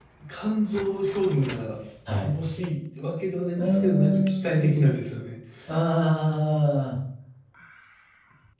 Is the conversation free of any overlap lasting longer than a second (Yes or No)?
No